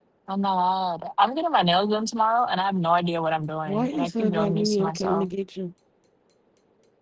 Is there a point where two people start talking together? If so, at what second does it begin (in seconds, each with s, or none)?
3.7 s